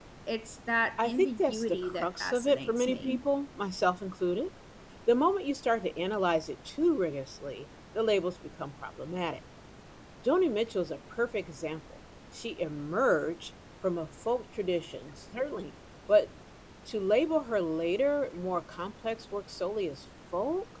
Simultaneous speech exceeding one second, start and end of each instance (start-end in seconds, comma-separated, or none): 1.0-3.2